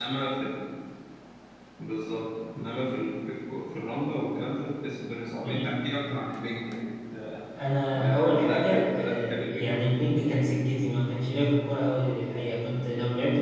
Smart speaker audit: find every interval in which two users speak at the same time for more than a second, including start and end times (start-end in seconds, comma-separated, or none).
8.0-10.0